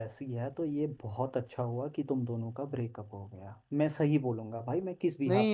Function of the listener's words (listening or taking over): taking over